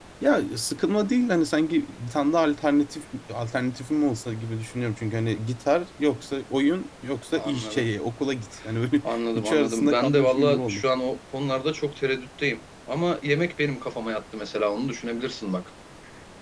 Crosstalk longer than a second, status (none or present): present